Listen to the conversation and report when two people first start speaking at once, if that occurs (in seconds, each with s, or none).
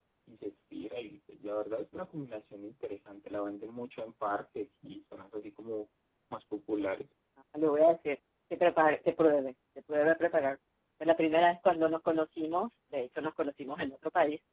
none